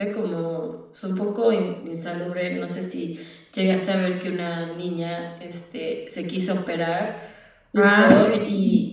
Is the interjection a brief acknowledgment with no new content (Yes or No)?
Yes